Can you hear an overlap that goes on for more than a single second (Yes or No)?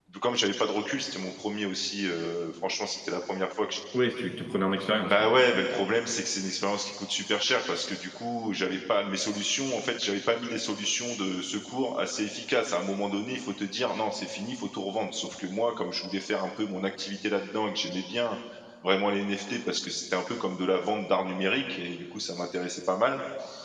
No